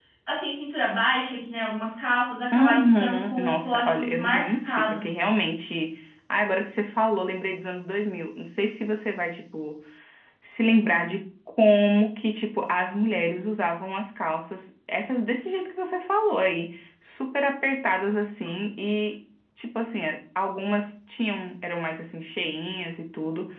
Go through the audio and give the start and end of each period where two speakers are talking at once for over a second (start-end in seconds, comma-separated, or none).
2.5-5.0